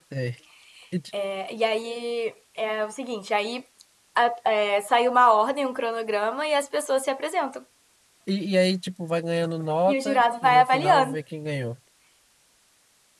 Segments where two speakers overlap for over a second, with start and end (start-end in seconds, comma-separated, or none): 9.9-11.1